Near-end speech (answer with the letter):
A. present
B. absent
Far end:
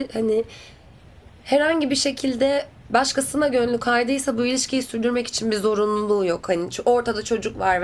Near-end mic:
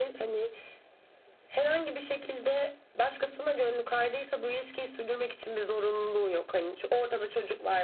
B